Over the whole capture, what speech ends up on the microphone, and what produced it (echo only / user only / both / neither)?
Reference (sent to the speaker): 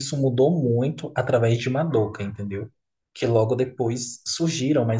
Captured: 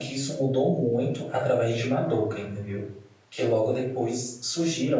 echo only